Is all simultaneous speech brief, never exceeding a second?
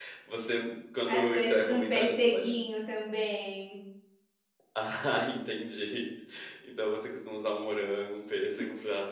No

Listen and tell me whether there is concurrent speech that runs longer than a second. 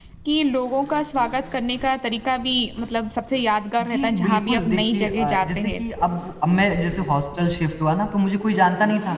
Yes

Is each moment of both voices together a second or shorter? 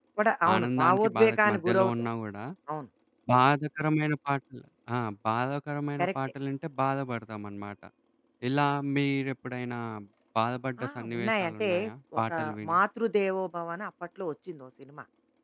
No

